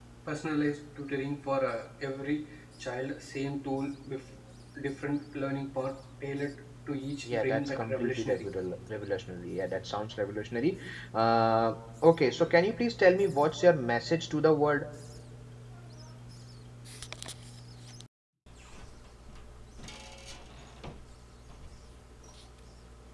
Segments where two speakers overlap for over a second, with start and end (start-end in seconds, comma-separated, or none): 7.2-8.5